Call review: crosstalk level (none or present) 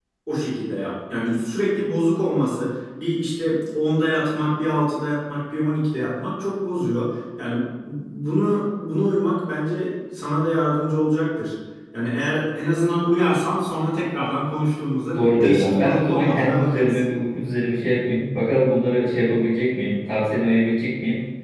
present